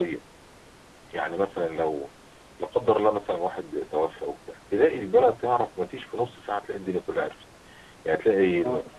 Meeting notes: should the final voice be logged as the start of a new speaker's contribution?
No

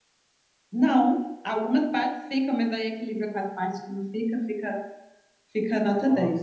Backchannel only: No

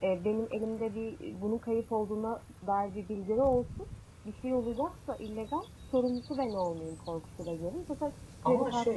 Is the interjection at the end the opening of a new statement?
Yes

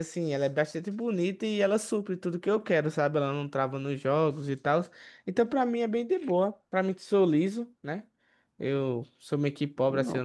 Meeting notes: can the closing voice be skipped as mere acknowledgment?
Yes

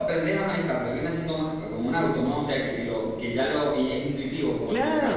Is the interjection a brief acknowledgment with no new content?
No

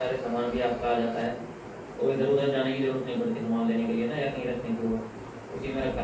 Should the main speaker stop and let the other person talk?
Yes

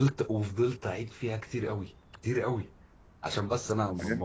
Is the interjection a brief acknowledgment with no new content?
No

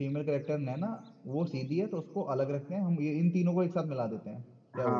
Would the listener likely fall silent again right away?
No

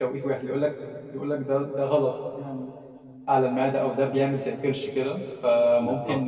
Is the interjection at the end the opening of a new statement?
No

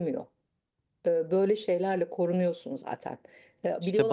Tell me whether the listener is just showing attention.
No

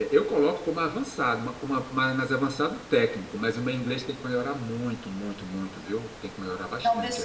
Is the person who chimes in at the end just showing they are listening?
No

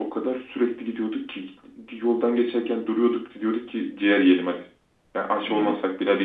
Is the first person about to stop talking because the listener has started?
No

